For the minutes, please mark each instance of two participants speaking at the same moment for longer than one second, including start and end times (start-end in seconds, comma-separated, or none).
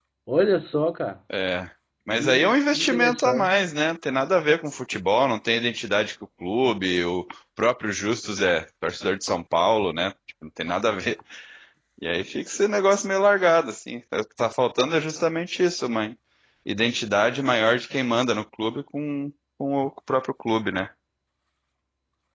2.2-3.5